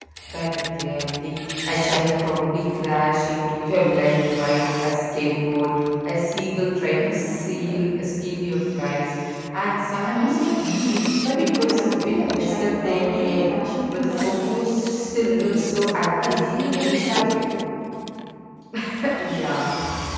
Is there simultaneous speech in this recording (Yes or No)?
Yes